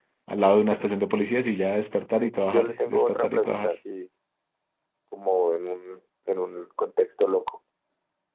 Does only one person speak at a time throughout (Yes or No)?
No